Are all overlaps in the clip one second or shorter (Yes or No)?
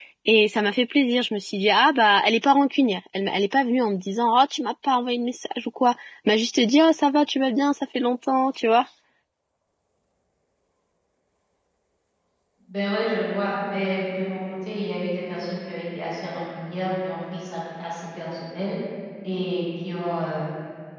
Yes